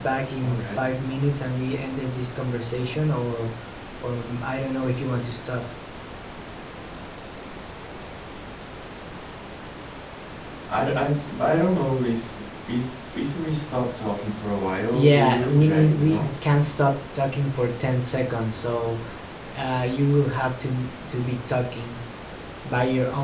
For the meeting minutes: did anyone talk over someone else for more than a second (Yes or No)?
Yes